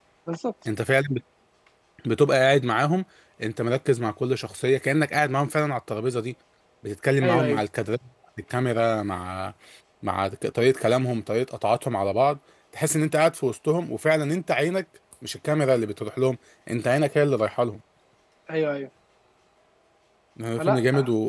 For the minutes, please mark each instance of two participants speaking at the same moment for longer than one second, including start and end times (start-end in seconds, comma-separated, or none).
none